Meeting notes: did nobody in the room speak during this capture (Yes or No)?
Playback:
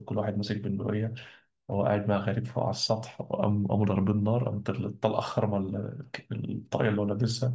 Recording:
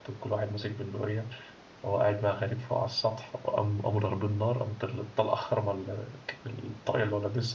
Yes